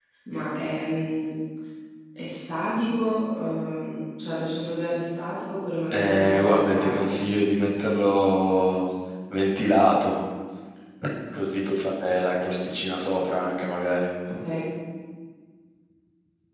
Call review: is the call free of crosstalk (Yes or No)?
No